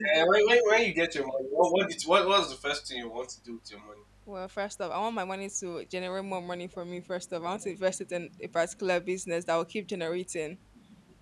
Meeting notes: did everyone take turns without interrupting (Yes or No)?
Yes